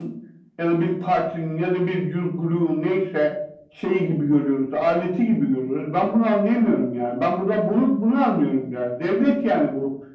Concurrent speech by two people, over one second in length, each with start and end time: none

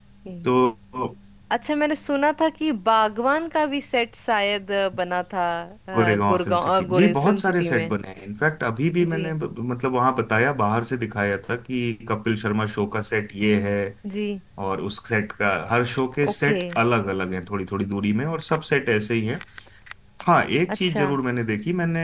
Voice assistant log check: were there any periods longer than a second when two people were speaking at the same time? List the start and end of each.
6.1-7.9

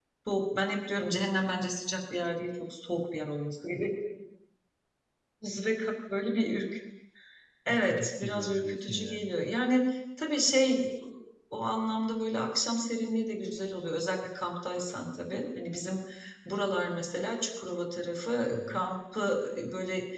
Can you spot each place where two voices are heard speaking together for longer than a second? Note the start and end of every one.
7.7-9.3

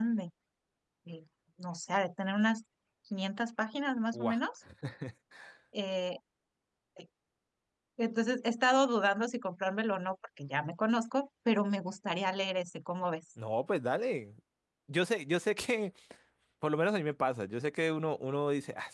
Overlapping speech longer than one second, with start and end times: none

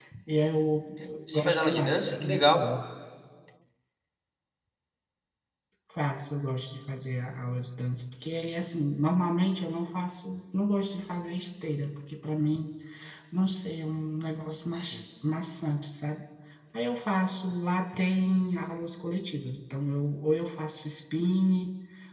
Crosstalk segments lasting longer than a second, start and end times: 1.3-2.6

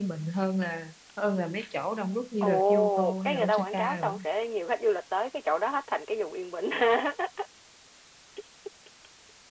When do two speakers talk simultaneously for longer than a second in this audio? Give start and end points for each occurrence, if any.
2.4-4.1

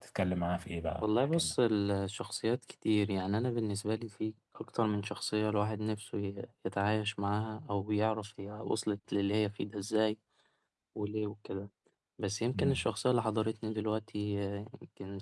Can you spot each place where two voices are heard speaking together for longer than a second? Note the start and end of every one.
none

